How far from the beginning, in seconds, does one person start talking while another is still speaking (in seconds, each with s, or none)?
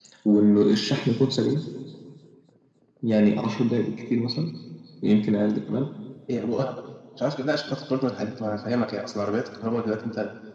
none